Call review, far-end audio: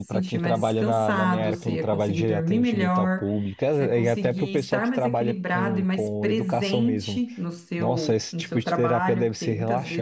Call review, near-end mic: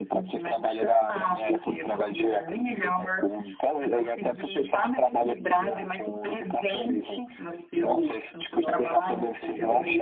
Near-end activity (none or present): present